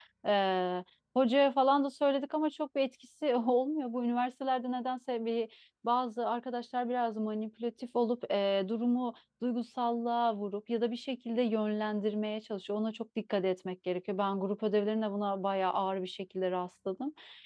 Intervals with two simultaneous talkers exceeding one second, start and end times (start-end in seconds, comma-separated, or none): none